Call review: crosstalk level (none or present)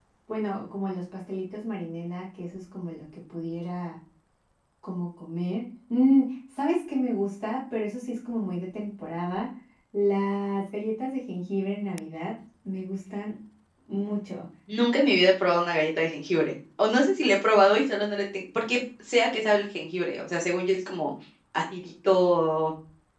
none